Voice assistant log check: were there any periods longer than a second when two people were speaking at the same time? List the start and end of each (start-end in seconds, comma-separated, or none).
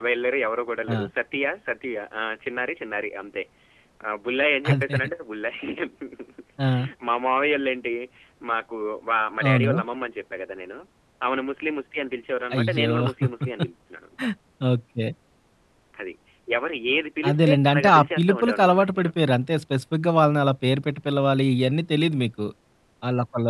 17.3-19.1